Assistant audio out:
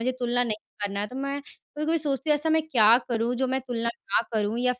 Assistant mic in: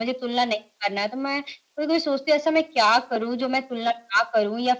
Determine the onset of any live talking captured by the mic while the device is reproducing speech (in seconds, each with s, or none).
none